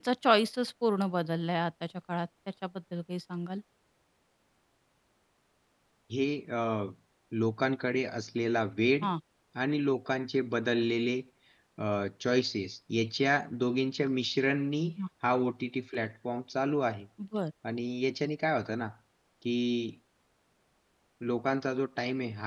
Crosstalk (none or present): none